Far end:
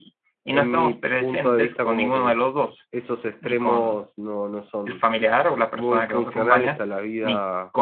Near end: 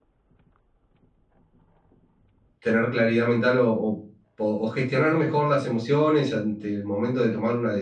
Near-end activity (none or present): present